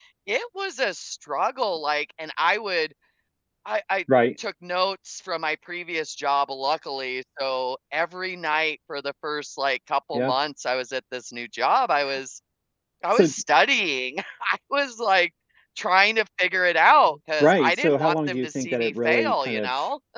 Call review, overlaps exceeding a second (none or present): present